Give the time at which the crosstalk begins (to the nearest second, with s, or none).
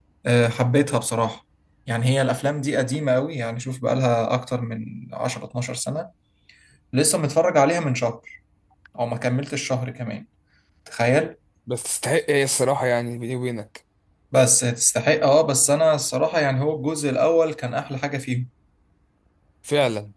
none